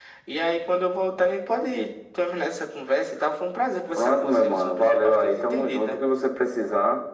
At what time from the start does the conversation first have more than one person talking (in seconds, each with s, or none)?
4.0 s